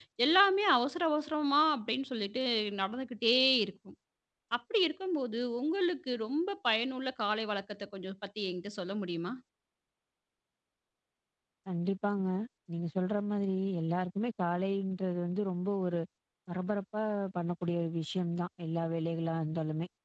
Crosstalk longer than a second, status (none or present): none